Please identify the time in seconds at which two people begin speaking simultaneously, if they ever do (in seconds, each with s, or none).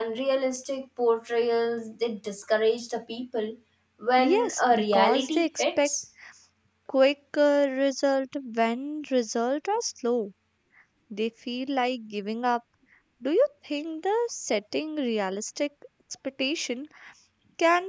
4.3 s